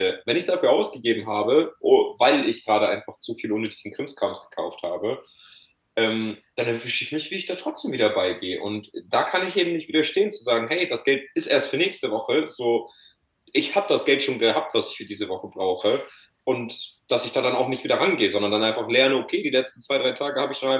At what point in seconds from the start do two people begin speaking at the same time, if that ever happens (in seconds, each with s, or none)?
none